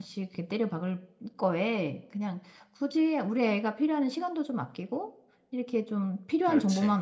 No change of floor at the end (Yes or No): Yes